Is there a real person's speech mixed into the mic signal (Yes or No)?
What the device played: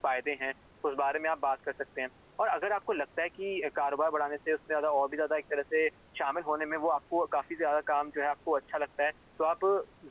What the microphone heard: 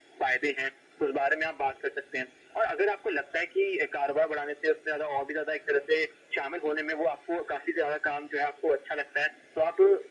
No